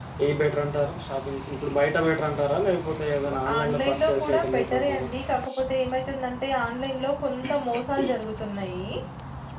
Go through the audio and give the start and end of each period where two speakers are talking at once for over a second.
3.6-5.1

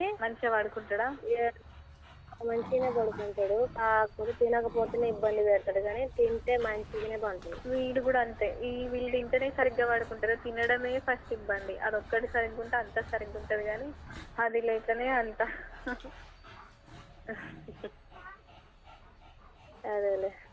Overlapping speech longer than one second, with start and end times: none

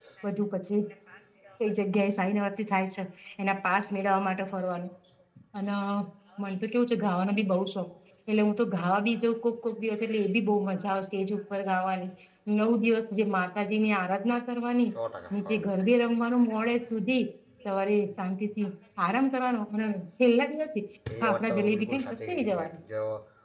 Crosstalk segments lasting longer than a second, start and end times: 21.2-22.8

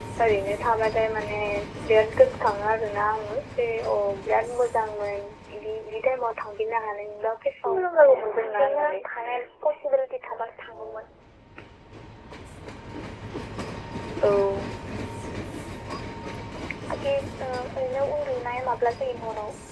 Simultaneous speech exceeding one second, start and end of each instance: 7.7-8.9

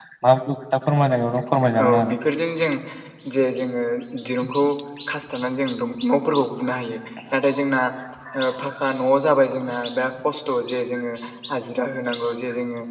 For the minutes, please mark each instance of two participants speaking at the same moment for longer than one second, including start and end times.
none

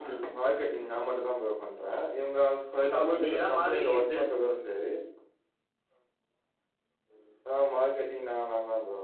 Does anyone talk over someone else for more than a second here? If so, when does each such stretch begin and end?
3.0-4.3

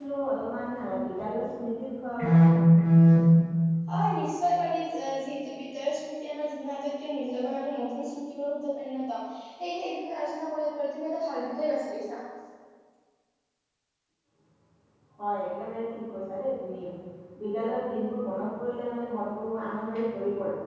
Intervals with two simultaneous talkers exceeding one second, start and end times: none

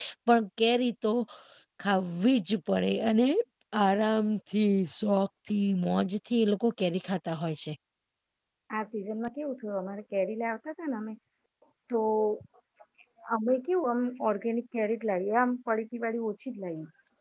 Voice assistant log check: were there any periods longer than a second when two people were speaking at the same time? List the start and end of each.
none

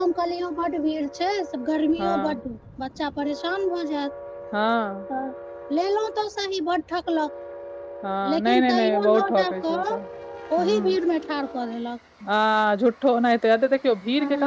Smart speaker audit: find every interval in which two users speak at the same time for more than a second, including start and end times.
8.3-9.9

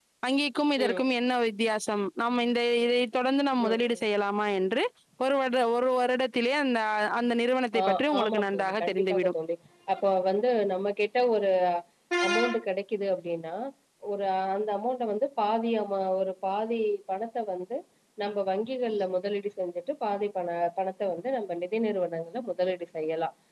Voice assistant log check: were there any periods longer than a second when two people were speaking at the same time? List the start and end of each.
7.8-9.3

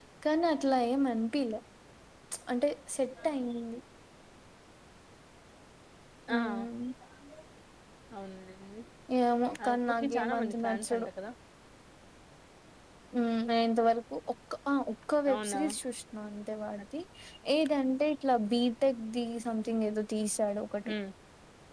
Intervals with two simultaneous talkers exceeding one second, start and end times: 9.6-11.1

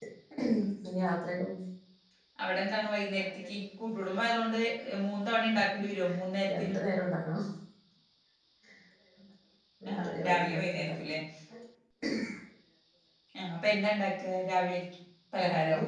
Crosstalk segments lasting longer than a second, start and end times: 9.9-11.1

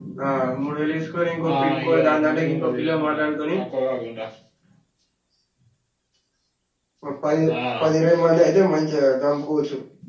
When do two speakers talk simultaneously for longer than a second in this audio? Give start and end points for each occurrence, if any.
1.5-3.2

